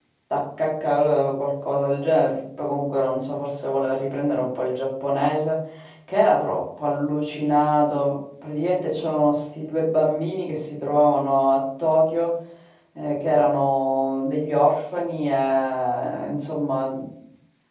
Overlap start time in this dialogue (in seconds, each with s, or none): none